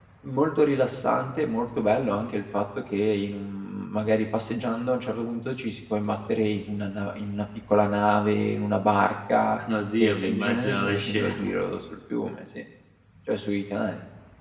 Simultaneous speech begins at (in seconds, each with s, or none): 10.0 s